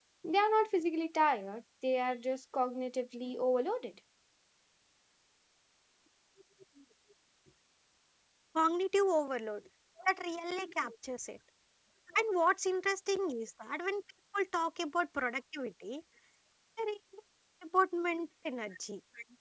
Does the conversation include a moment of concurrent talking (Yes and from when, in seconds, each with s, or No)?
No